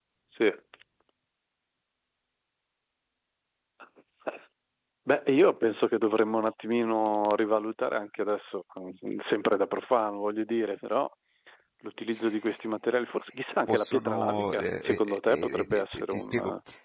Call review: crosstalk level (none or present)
present